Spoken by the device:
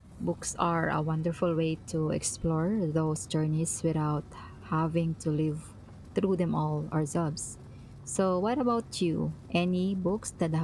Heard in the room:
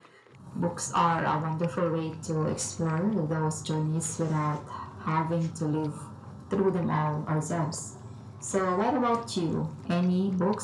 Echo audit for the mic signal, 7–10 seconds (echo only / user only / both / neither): echo only